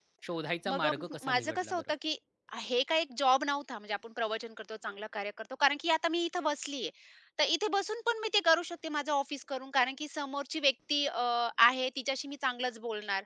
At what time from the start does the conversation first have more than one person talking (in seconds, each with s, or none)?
0.7 s